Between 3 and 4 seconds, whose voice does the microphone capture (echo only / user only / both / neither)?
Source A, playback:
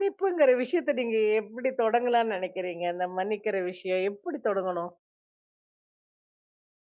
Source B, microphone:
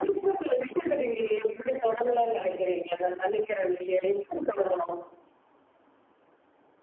echo only